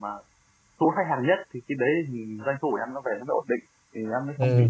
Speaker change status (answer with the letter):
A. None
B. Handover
B